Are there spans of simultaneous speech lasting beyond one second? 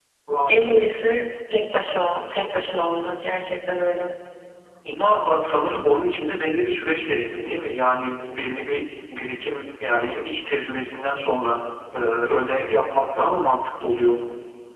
No

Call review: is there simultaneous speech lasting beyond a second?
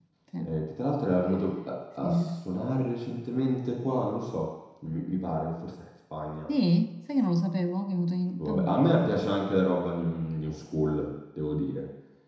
No

